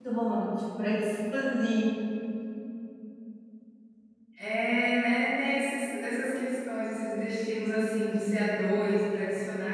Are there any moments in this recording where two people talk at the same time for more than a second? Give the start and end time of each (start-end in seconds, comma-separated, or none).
none